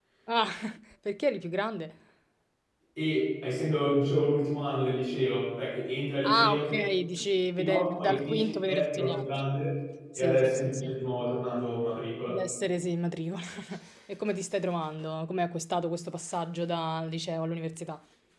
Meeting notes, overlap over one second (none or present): present